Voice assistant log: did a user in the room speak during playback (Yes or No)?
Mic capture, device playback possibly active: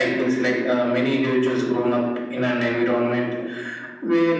No